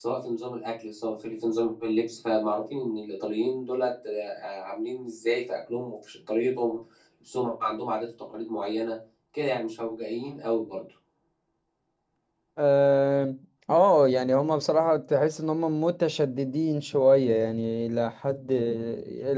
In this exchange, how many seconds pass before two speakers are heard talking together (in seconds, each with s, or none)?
none